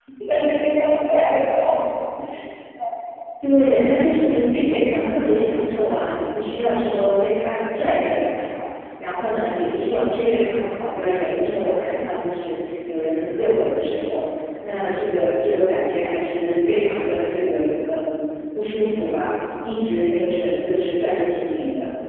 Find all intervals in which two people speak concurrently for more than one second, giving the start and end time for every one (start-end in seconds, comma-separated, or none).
none